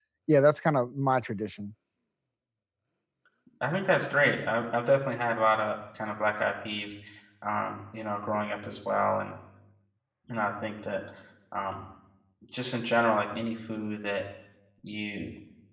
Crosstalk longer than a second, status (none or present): none